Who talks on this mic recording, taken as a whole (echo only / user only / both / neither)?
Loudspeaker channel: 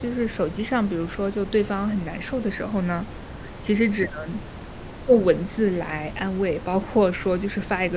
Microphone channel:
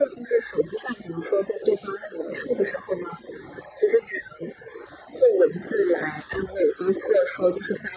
echo only